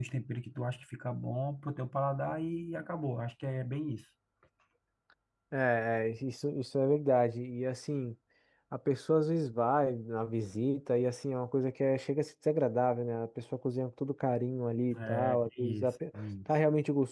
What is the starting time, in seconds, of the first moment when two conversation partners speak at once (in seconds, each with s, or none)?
14.9 s